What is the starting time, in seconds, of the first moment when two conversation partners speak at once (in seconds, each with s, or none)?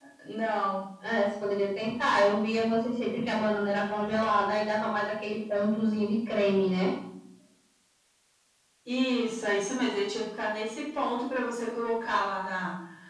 none